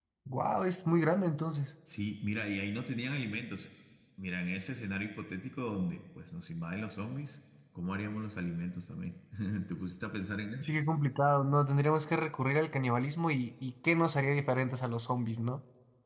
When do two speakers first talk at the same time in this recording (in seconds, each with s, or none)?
none